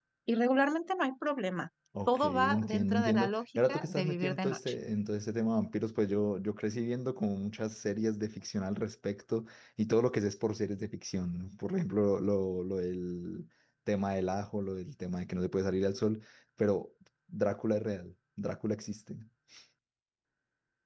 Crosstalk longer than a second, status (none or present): present